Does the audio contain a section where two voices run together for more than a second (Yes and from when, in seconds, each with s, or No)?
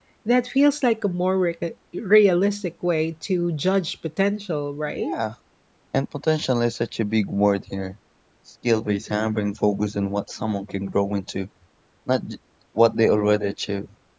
No